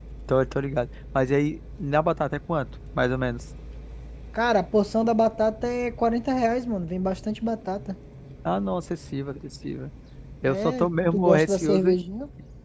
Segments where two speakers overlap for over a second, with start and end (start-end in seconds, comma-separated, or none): 10.4-11.9